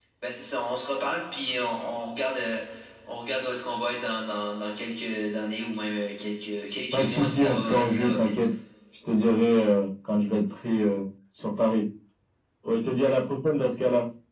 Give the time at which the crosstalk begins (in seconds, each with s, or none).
6.9 s